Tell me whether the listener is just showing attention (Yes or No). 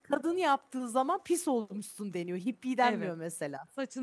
No